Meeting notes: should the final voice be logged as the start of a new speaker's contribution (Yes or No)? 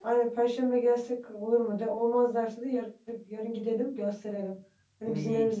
No